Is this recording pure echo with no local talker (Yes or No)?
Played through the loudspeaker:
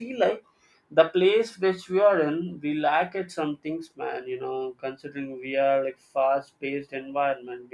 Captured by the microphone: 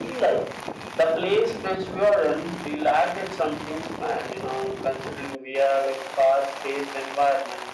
Yes